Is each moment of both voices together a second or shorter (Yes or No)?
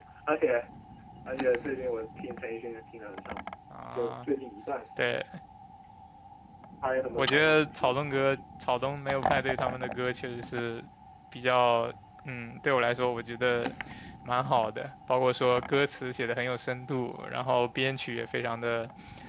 No